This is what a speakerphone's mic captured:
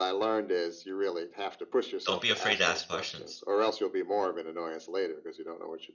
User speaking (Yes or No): Yes